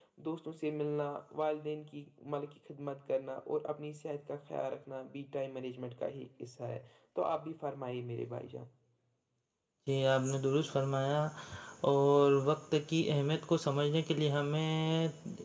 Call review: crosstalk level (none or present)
none